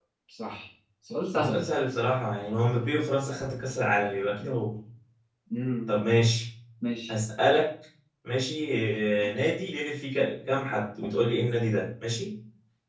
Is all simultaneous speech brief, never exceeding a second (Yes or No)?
Yes